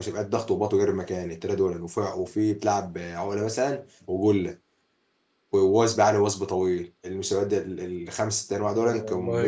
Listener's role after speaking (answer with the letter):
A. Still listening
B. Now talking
A